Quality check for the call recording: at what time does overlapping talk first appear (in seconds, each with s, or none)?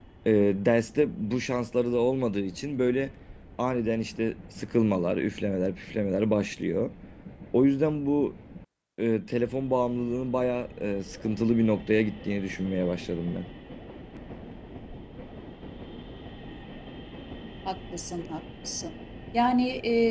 none